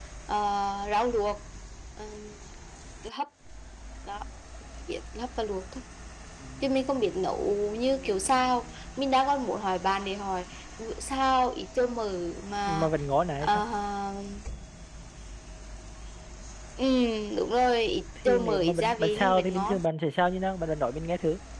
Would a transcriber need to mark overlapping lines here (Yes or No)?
Yes